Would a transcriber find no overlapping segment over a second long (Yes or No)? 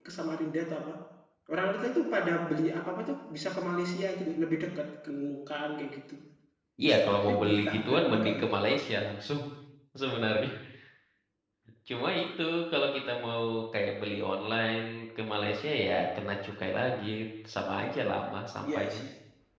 No